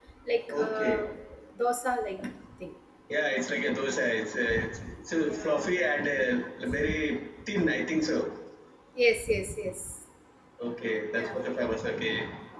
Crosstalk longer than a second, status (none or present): none